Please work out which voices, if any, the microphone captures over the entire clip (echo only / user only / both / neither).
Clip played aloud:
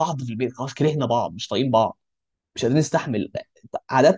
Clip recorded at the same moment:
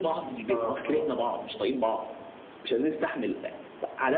both